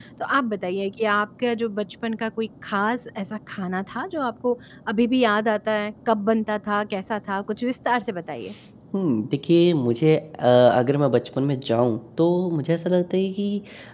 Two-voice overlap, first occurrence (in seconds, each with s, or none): none